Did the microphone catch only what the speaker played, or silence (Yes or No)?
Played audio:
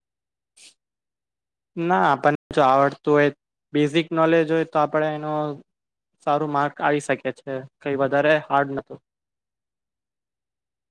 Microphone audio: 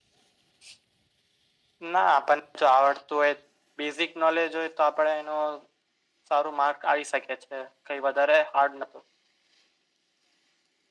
Yes